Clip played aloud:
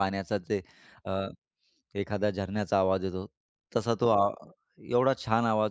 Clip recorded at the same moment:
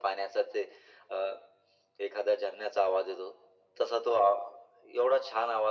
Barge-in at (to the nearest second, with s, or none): none